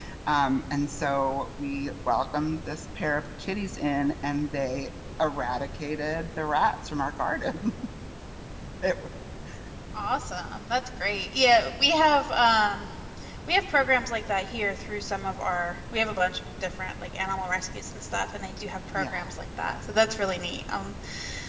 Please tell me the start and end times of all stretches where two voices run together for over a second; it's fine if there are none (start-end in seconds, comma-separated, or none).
none